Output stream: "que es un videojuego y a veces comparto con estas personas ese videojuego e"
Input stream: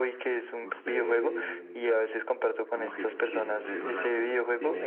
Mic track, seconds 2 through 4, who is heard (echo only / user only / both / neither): both